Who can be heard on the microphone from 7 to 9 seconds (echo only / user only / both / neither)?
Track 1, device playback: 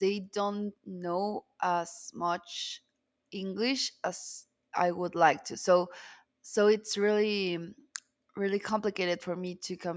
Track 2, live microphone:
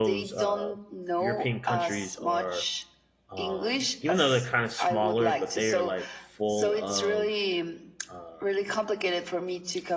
both